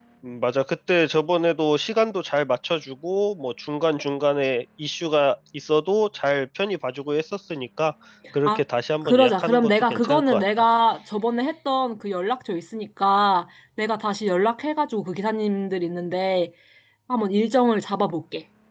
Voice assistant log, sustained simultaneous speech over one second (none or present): present